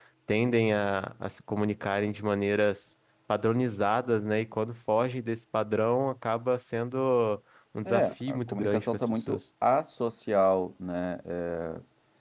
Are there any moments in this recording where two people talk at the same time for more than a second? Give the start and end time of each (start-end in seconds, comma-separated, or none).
7.8-9.4